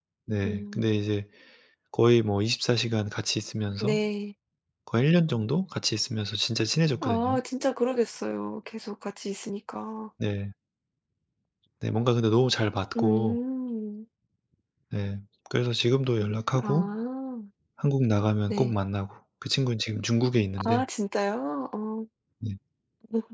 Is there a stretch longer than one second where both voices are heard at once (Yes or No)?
No